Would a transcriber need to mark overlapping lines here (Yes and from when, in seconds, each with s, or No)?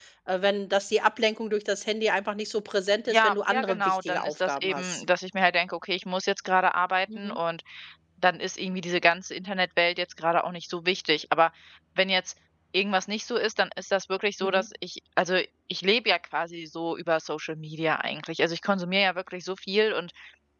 Yes, from 3.1 s